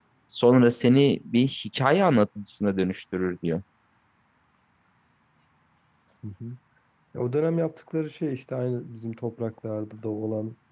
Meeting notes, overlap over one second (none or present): none